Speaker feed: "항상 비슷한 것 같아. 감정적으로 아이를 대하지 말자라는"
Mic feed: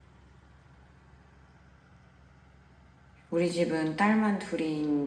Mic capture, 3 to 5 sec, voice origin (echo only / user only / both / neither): user only